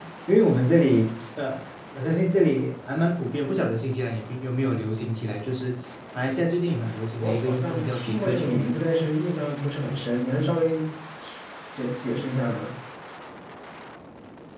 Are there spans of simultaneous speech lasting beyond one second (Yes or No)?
Yes